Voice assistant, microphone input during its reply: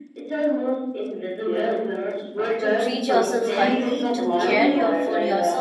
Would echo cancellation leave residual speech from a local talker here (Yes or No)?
Yes